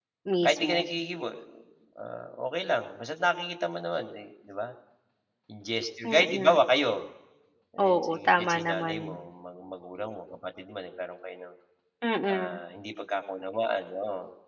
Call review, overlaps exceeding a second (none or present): present